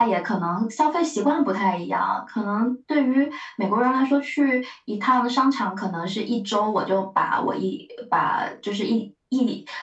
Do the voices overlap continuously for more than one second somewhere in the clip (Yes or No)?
No